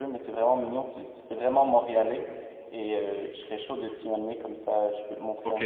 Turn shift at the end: Yes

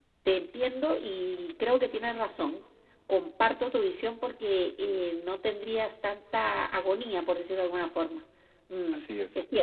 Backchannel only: Yes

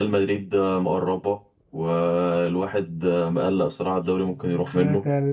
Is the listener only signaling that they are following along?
No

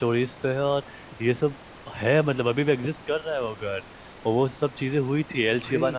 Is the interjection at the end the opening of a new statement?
No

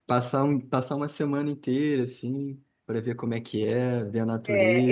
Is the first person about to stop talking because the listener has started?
Yes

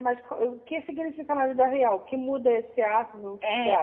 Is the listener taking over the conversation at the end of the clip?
Yes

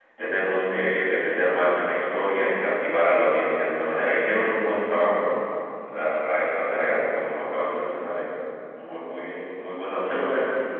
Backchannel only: No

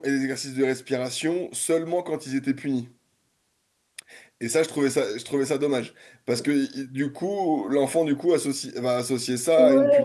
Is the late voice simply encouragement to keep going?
No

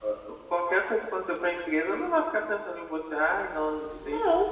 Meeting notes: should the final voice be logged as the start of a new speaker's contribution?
No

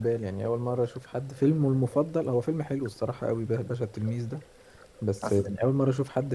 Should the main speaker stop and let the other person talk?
No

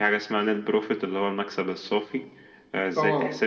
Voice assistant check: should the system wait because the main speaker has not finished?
Yes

